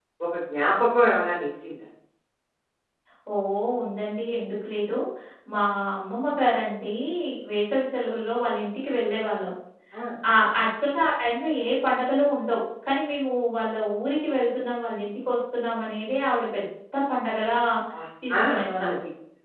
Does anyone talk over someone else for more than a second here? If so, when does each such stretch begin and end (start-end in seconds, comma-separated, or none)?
none